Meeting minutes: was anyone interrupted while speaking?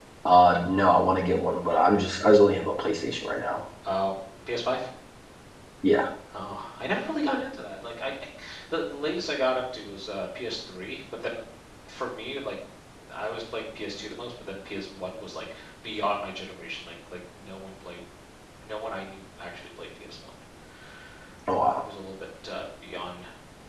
No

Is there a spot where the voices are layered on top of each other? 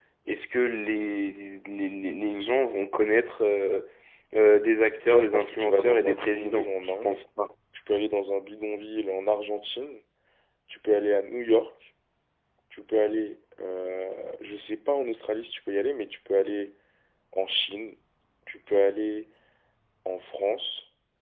Yes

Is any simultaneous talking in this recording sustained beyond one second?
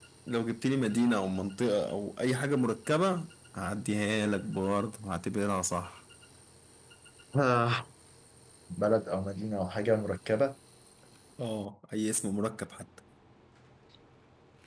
No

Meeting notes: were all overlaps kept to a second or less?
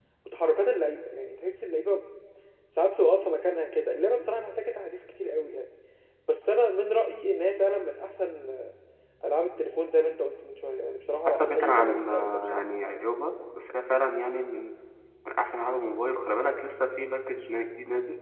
No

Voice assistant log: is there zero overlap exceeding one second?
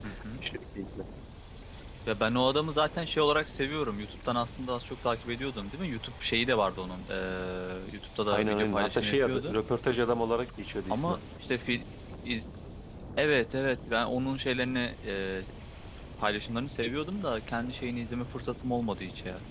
No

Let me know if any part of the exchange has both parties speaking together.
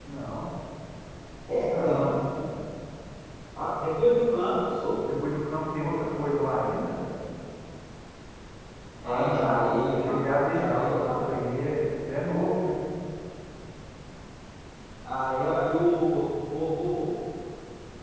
Yes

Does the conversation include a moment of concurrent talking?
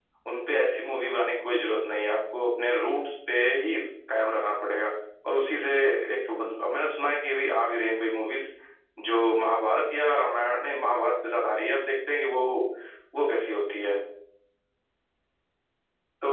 No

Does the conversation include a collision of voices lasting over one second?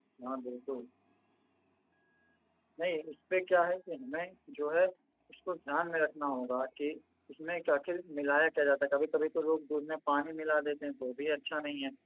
No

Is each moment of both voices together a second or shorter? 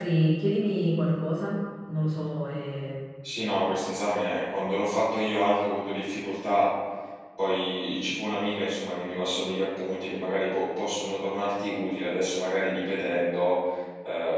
Yes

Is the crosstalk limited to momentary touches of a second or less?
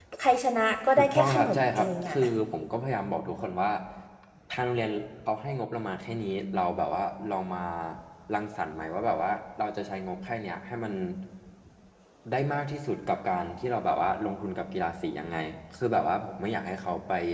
No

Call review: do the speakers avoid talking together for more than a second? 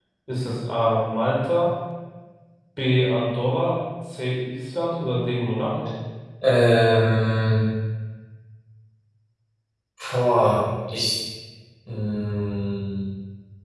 Yes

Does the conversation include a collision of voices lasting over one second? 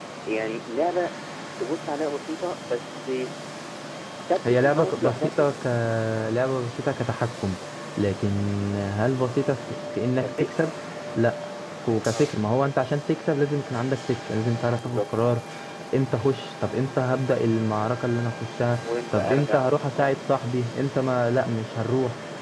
Yes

